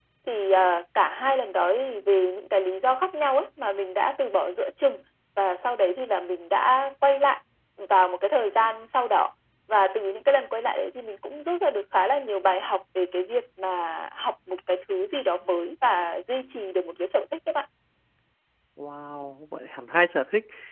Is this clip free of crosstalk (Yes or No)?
Yes